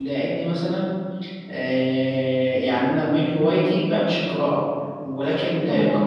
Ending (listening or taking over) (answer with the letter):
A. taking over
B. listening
B